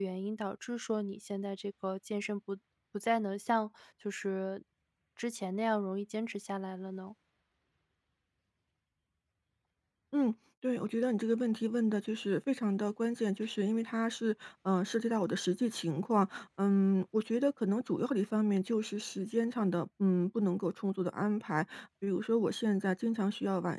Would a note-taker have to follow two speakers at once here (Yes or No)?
No